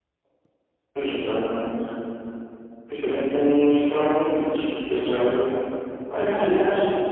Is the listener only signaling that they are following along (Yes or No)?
Yes